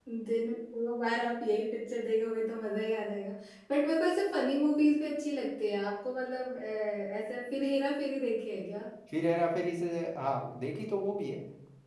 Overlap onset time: none

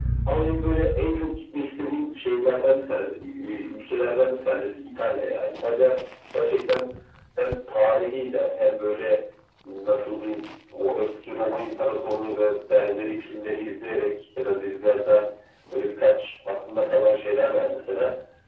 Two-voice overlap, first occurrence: none

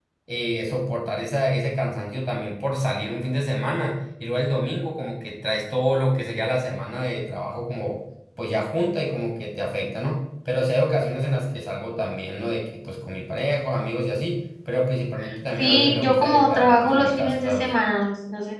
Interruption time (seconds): 15.6 s

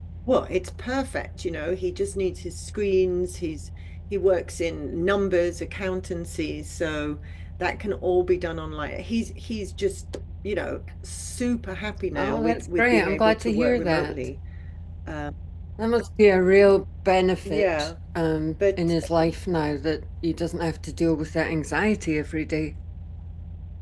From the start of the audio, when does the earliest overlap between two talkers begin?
12.2 s

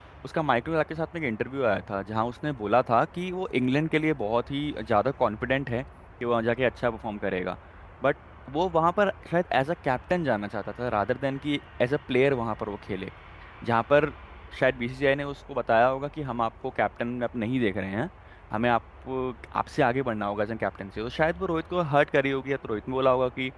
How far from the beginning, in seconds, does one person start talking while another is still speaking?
none

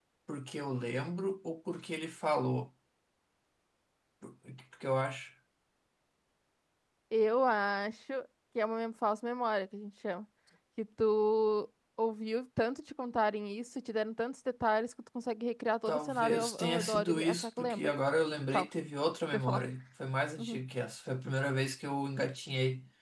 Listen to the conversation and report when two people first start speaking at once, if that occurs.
15.9 s

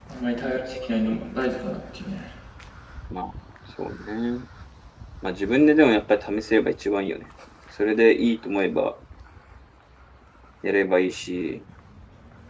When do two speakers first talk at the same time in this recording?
none

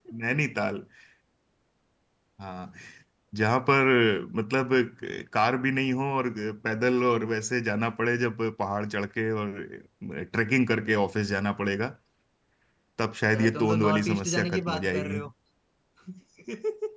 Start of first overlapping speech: 13.3 s

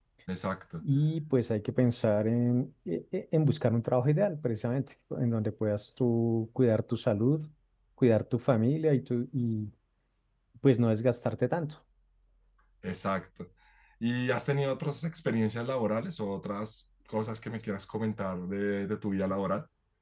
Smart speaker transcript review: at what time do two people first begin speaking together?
none

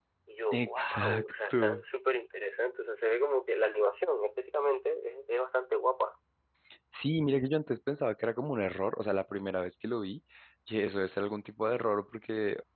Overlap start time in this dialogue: 0.5 s

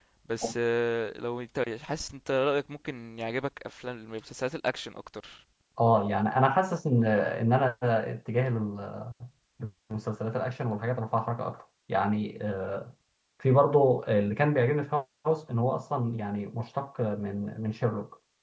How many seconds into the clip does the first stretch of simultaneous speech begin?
none

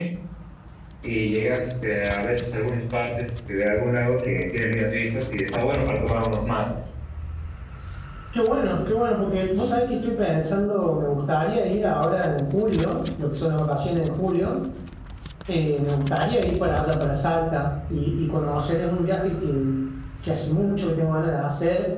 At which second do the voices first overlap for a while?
none

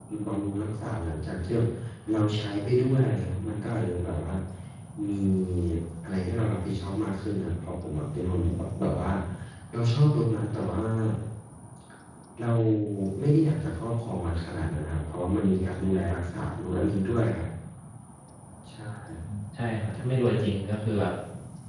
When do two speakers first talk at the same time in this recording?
none

